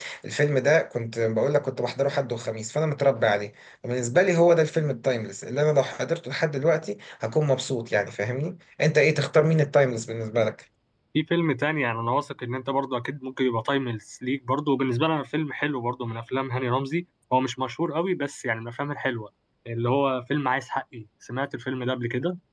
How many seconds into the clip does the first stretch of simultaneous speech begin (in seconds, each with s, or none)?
none